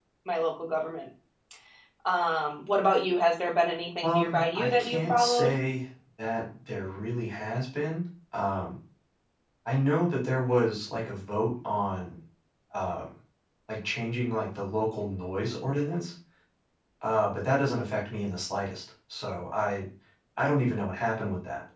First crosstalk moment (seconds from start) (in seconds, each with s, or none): 4.0 s